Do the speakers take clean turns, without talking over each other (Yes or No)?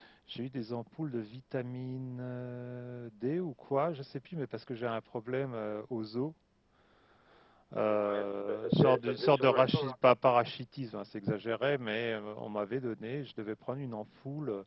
No